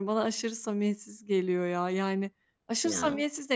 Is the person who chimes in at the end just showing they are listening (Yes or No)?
Yes